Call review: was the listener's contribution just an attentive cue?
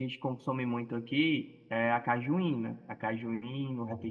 Yes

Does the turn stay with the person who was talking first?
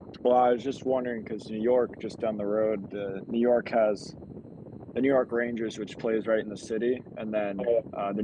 Yes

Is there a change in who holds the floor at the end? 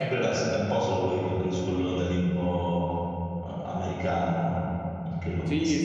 Yes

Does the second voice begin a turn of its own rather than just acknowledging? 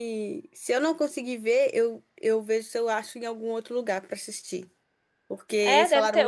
Yes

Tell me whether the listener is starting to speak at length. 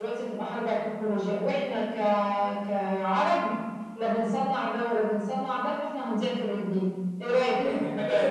Yes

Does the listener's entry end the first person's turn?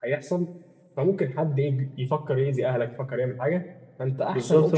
Yes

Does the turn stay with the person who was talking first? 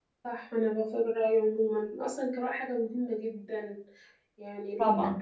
Yes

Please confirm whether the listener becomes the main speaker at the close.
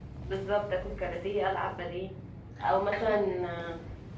No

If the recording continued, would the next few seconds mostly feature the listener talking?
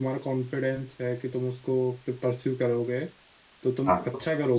No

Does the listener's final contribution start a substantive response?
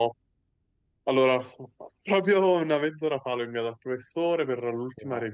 No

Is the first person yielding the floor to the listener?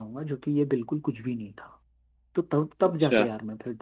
No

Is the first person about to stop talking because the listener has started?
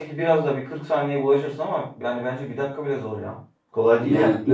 Yes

